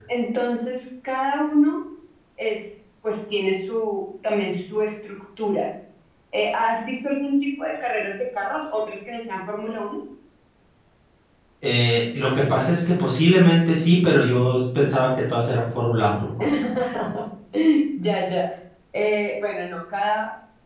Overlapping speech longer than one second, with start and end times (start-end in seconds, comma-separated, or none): none